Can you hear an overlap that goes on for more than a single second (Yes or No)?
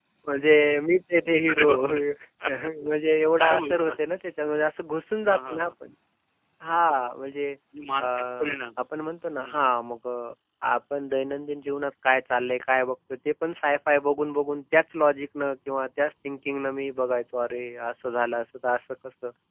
No